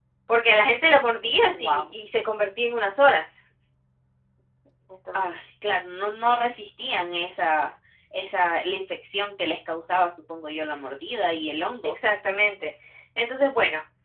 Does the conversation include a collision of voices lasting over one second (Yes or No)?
No